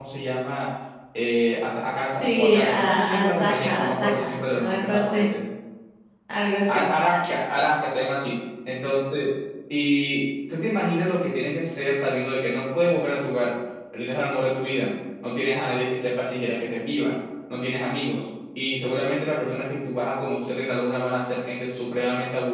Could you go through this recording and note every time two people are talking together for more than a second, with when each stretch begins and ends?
2.2-5.3

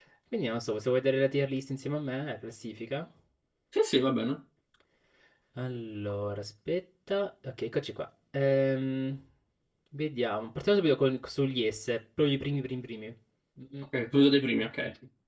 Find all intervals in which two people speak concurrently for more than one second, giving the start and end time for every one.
none

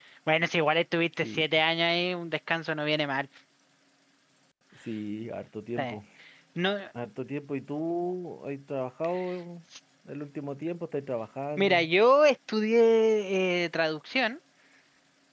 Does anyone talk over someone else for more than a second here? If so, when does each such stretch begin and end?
none

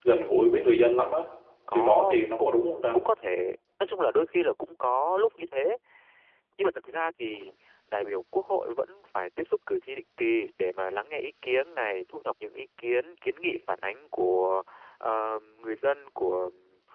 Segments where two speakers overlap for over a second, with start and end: 1.7-3.0

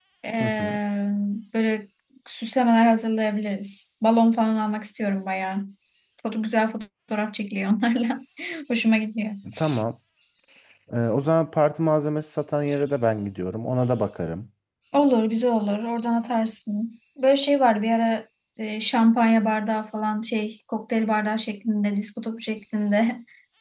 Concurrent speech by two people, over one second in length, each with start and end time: none

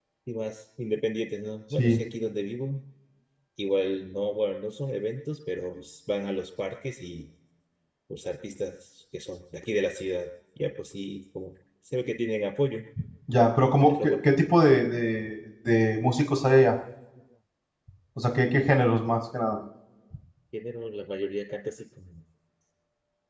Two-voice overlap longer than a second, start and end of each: none

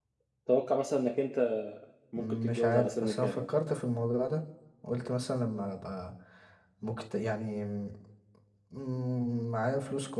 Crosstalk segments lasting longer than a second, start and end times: 2.2-3.4

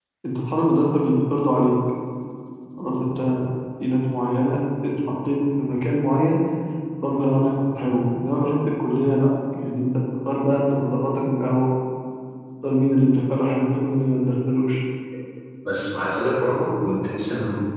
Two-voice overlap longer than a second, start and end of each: none

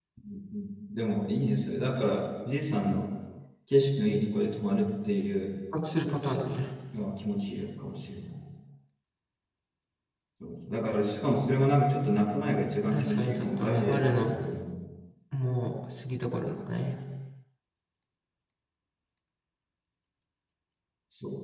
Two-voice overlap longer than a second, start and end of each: 12.9-14.3

